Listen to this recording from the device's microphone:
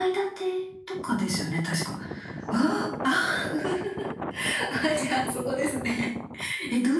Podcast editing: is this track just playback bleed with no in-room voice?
No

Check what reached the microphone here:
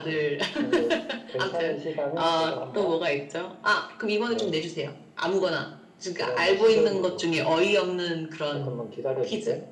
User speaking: No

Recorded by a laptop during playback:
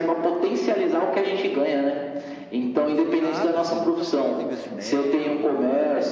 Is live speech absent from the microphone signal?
No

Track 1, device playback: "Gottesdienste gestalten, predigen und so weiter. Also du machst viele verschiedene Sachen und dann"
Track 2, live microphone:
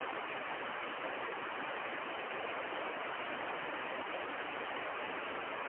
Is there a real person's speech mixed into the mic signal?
No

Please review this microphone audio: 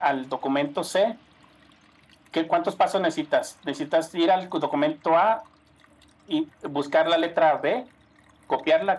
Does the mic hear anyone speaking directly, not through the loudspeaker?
No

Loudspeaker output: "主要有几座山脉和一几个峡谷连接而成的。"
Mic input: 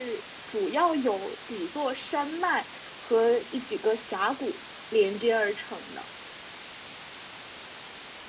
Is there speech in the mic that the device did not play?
No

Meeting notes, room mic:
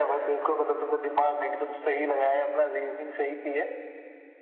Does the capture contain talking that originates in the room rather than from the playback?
No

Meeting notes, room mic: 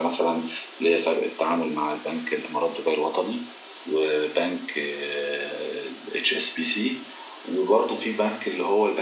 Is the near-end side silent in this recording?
Yes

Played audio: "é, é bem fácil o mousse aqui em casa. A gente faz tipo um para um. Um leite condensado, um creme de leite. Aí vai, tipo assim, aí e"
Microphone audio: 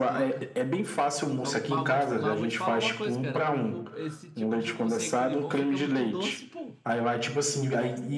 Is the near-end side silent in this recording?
No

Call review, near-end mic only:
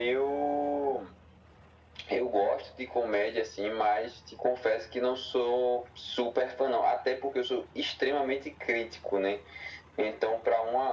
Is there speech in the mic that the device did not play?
No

